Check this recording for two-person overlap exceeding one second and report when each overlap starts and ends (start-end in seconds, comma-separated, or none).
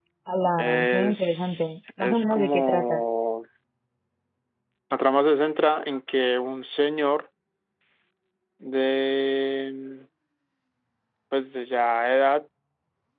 0.6-3.0